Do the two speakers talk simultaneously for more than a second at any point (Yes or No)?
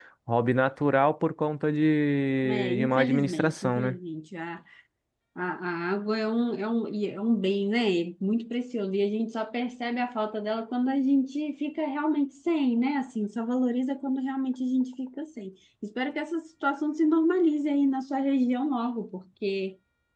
Yes